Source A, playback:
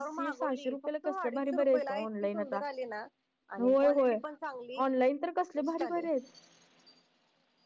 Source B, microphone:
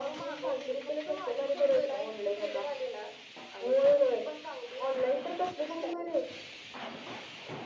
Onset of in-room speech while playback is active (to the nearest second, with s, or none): none